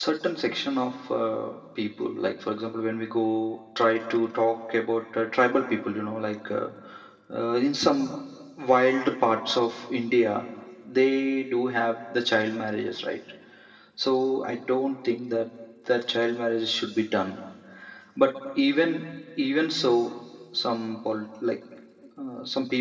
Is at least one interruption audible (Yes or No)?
No